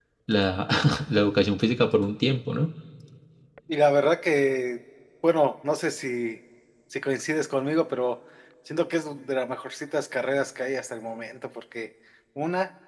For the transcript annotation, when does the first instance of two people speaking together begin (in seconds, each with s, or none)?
none